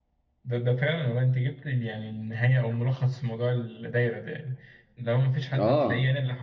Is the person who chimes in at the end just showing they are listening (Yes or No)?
Yes